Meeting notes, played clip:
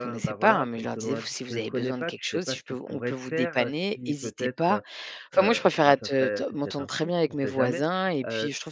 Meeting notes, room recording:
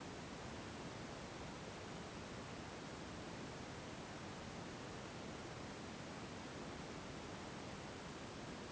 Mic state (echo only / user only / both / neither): neither